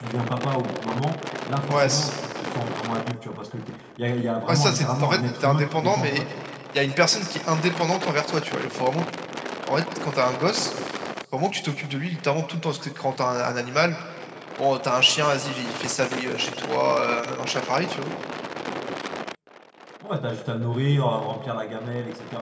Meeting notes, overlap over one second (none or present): present